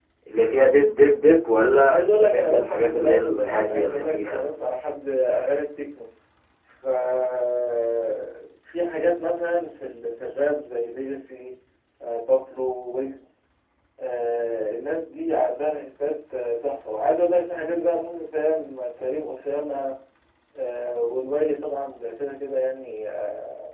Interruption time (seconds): 1.9 s

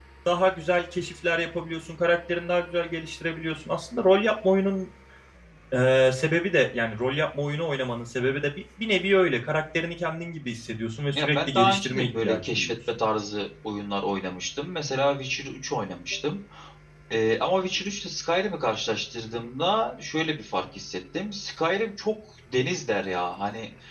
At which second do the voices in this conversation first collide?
11.1 s

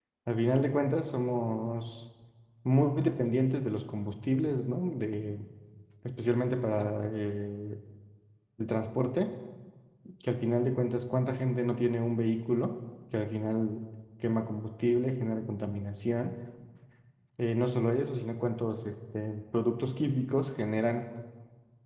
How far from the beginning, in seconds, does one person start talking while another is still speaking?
none

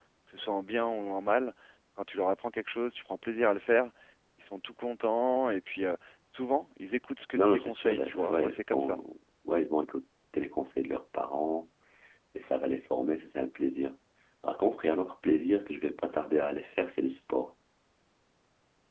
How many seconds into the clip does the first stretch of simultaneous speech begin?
7.4 s

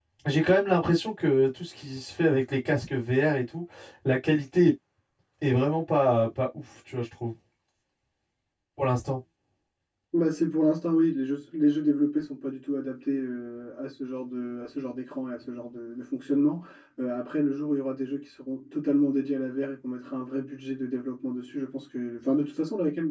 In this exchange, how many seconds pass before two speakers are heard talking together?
none

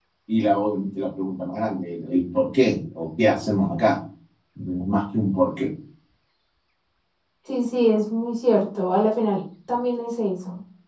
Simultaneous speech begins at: none

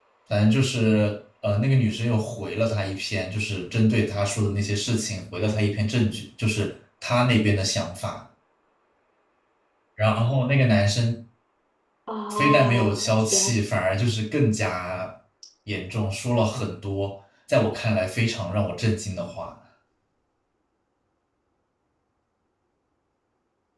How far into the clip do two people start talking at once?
12.3 s

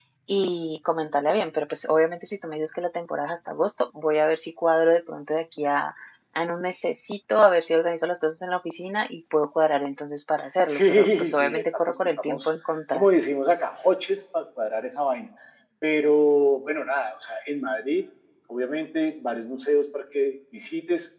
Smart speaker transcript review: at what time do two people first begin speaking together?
10.7 s

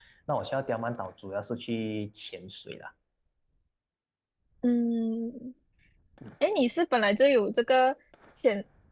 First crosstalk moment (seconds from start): none

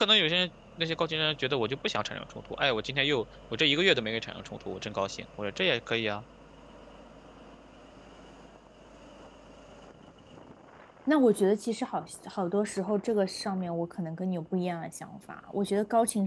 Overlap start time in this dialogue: none

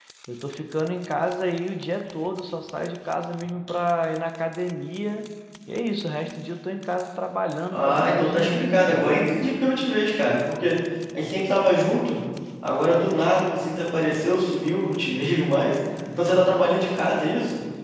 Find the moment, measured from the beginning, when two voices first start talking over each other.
7.7 s

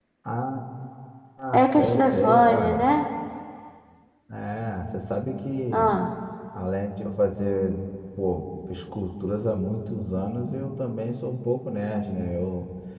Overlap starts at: 1.5 s

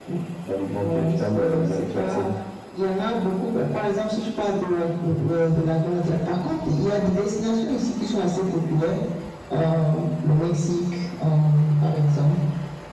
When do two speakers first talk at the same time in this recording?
0.8 s

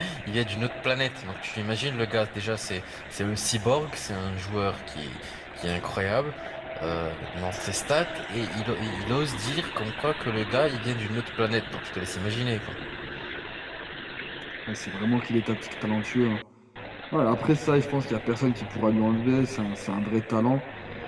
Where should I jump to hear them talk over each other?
none

